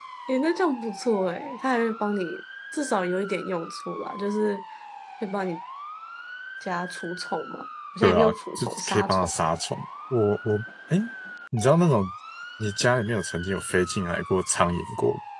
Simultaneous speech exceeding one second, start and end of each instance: 8.0-9.3

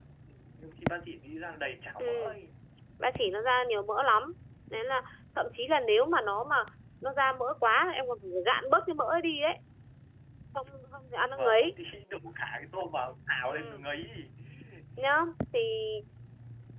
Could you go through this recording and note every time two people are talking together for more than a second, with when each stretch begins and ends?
none

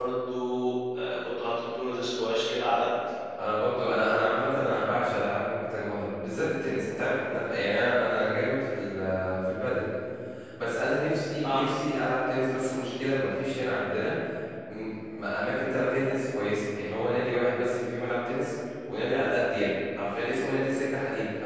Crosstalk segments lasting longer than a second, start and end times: none

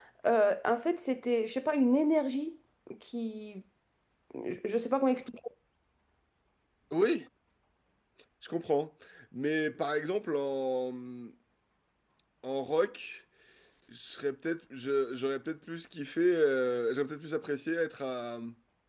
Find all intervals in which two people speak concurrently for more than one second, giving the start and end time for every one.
none

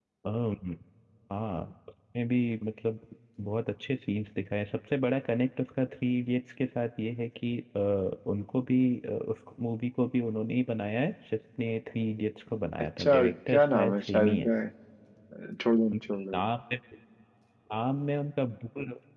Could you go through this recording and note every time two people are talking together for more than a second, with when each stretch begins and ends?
12.8-14.5

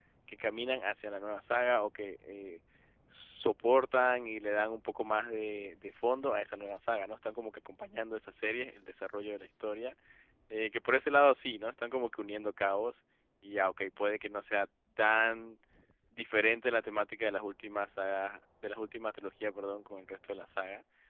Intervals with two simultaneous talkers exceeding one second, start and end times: none

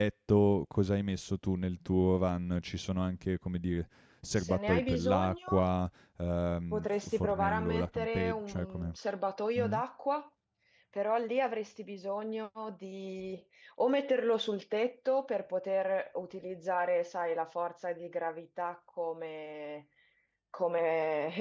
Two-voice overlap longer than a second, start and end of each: 4.4-5.6, 6.7-8.9

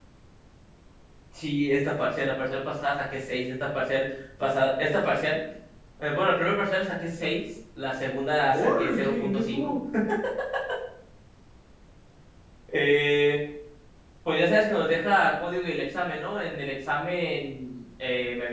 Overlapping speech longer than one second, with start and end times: 8.5-9.7

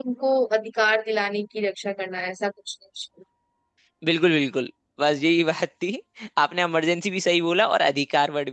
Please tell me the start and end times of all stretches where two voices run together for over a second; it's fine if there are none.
none

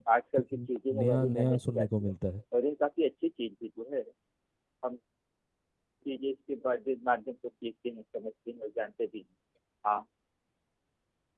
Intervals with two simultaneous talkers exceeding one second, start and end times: 0.9-2.1

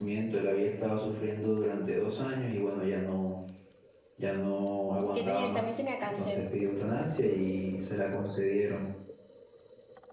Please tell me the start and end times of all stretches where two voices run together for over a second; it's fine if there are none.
5.0-6.4

